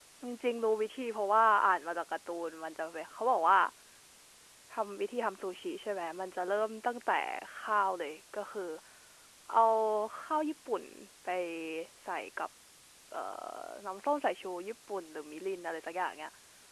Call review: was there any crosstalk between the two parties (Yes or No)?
No